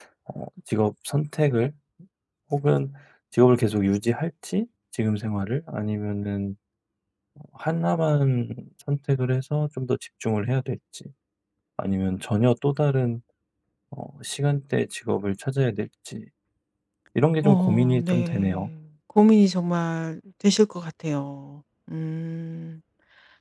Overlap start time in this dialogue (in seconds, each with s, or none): 17.4 s